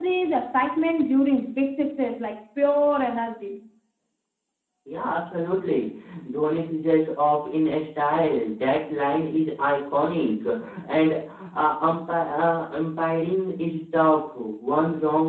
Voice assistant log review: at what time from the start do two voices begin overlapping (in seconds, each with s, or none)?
none